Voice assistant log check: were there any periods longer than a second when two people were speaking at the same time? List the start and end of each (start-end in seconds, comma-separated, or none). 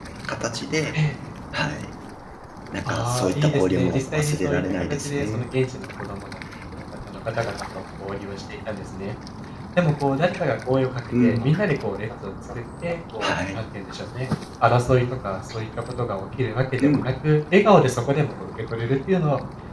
2.8-5.5